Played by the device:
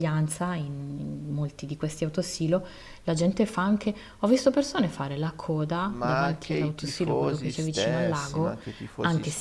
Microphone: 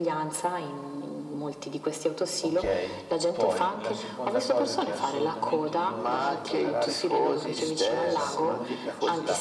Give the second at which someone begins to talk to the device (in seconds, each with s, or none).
2.4 s